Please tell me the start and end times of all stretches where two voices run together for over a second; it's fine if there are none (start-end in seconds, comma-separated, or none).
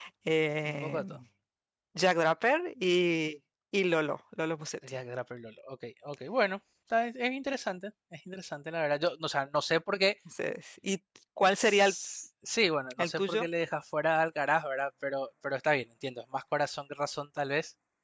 none